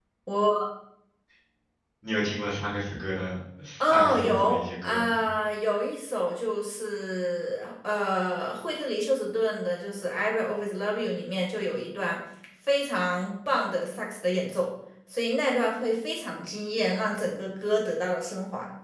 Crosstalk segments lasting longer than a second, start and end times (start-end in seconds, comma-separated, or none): 3.8-5.2